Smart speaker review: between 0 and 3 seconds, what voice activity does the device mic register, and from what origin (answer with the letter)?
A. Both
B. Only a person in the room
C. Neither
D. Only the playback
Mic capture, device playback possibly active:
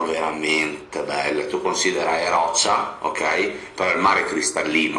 D